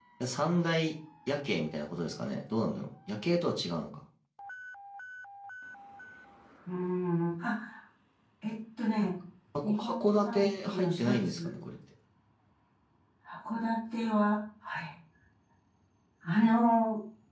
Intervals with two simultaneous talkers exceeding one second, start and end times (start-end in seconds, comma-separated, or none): 9.6-11.5